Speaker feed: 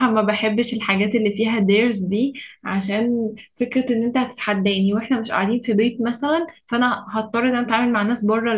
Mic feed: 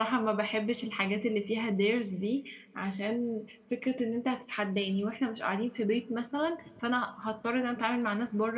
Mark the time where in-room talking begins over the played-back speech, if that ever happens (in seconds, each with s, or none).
none